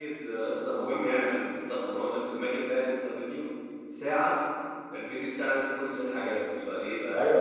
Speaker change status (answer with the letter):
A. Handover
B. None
A